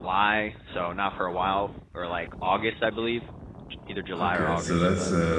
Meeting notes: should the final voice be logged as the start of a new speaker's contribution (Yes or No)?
Yes